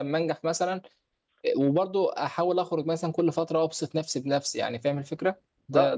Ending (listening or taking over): taking over